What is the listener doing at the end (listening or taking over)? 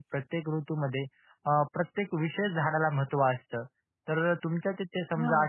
listening